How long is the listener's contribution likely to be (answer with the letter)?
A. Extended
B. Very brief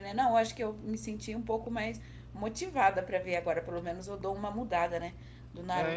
A